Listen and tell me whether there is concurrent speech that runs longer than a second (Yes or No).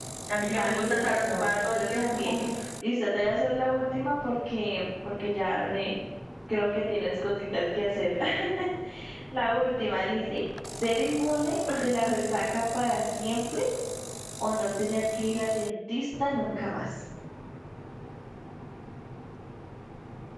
Yes